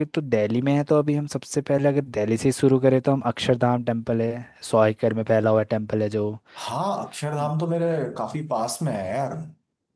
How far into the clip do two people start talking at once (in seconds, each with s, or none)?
none